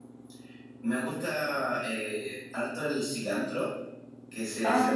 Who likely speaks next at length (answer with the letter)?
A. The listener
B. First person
B